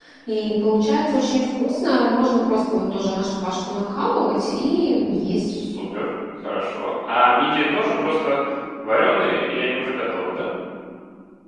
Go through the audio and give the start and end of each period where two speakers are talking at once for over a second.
none

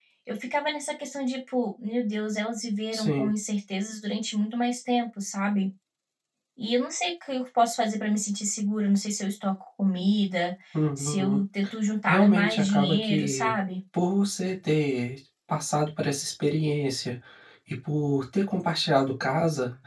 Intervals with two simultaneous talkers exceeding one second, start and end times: 12.1-13.5

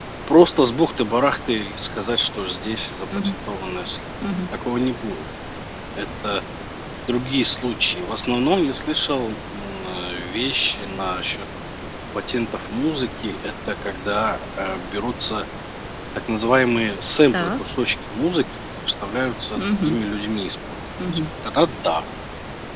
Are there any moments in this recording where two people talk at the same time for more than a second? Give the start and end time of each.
none

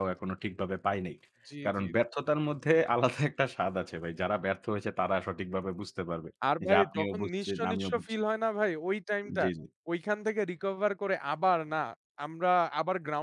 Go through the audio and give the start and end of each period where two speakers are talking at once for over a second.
6.6-8.0

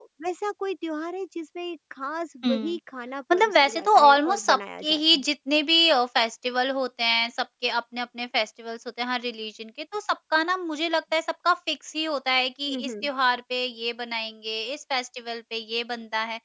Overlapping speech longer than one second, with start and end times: 3.3-5.2

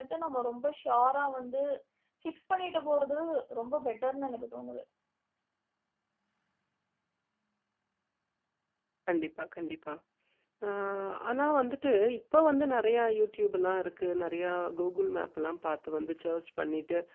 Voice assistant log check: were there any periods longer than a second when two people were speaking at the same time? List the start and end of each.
none

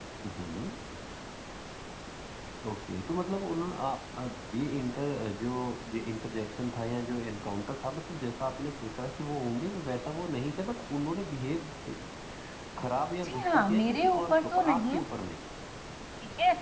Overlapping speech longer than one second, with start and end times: 13.2-15.0

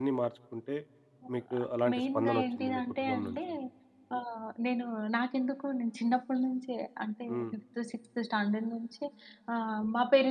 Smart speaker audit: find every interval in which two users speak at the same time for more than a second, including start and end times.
1.9-3.4

